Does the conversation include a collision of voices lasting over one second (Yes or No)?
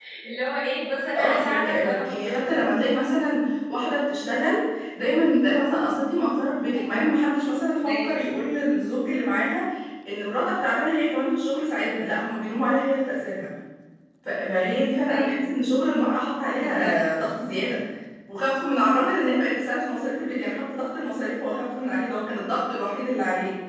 Yes